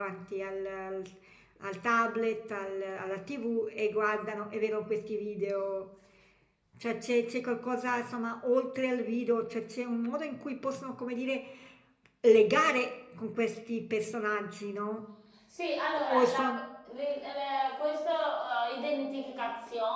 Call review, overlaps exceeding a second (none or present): none